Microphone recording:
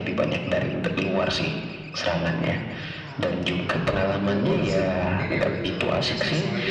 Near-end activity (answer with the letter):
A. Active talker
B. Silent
A